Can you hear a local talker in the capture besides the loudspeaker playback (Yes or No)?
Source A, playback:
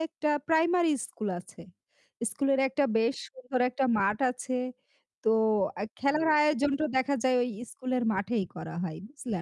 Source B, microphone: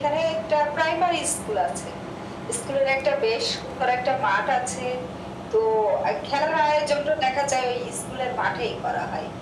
No